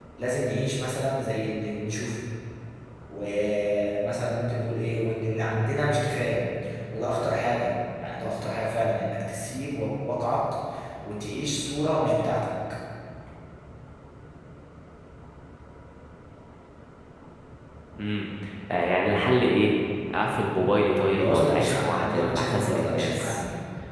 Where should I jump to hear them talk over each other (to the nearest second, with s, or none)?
21 s